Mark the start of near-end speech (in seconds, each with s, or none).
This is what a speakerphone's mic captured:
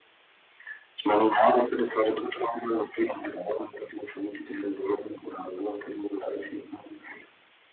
none